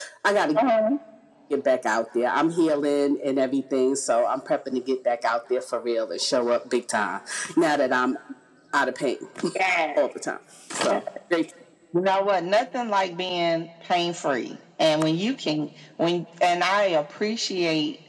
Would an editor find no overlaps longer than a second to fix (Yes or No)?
Yes